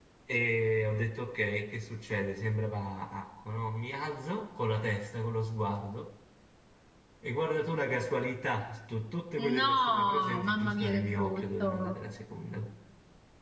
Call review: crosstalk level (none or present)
present